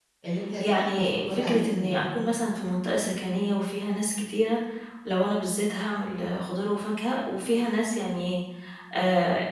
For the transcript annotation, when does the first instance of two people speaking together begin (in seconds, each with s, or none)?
0.6 s